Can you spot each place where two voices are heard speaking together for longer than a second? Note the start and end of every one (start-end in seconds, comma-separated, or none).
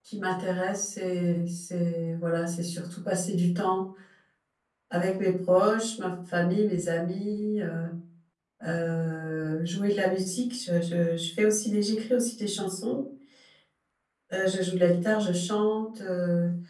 none